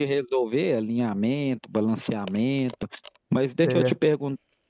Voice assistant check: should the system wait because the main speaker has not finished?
Yes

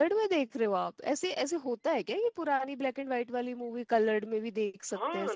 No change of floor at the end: No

